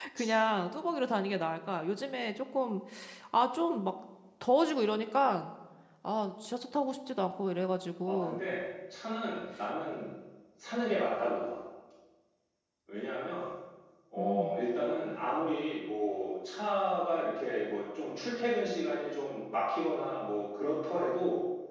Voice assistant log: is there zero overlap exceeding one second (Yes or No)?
Yes